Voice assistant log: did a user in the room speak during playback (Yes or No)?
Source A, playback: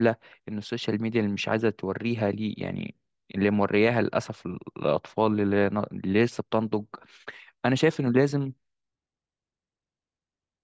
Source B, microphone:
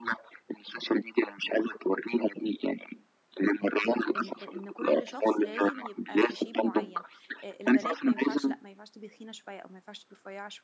Yes